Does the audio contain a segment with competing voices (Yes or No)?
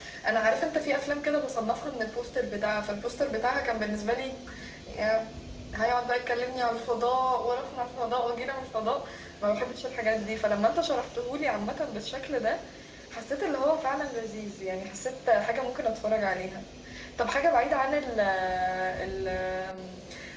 No